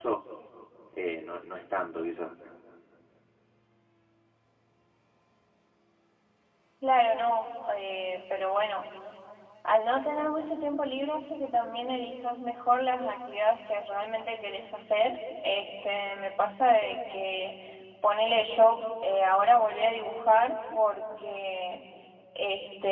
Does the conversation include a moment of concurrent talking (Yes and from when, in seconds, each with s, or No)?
No